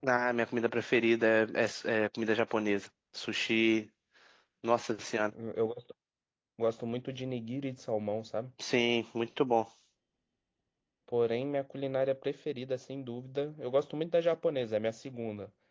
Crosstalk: none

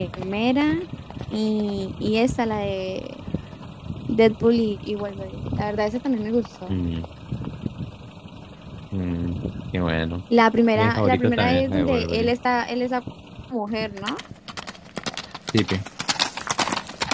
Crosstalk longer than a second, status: present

